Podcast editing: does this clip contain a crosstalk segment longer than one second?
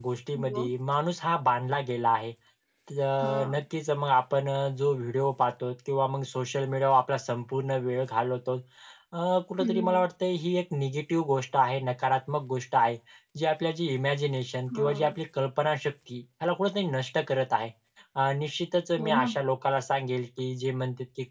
No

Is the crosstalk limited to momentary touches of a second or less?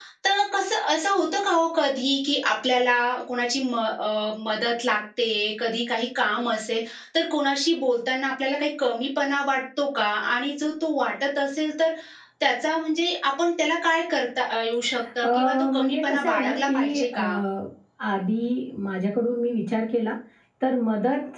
No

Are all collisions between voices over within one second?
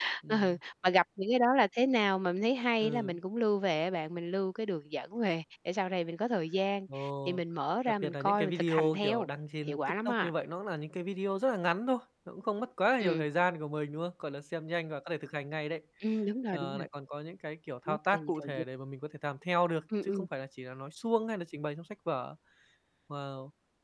No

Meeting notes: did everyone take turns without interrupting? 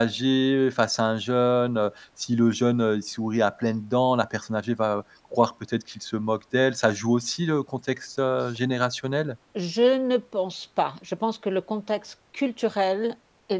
Yes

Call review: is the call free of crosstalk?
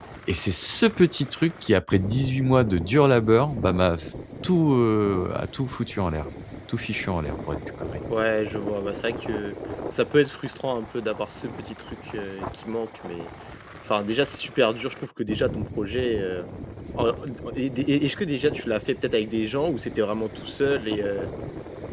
Yes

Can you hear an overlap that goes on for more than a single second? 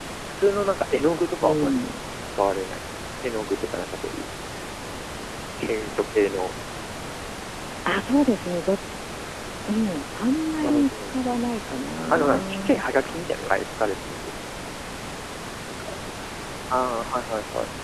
Yes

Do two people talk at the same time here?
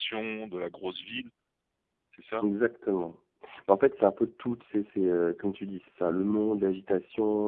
No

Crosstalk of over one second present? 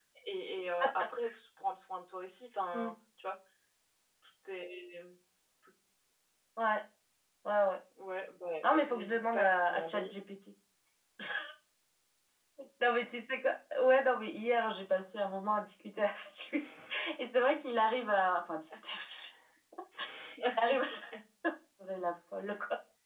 Yes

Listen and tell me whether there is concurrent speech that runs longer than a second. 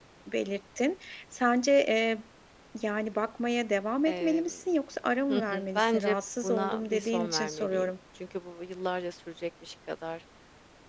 Yes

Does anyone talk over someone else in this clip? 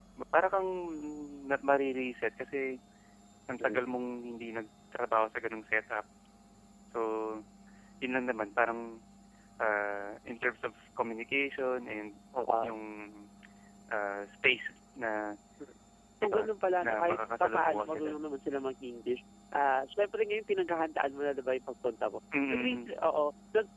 Yes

